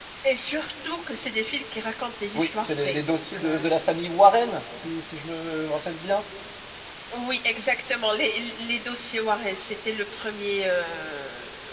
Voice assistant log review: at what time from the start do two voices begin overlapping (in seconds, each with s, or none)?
2.3 s